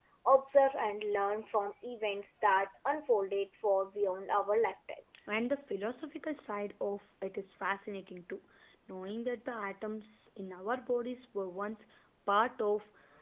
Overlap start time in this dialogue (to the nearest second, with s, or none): none